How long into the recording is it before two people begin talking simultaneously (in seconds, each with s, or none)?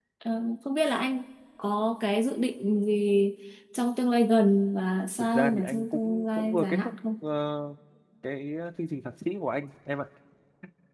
5.2 s